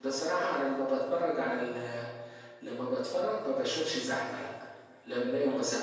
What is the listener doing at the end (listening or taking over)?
listening